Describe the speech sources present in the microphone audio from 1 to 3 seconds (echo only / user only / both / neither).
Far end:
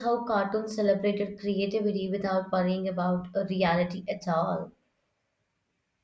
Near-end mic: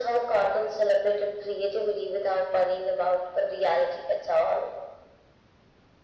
echo only